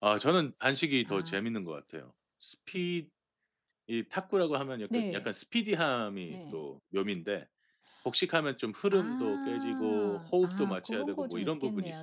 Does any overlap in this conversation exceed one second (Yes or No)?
Yes